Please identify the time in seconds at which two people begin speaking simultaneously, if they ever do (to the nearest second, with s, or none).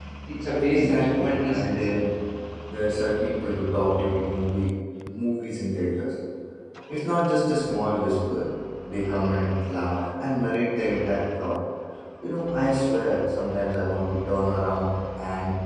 1 s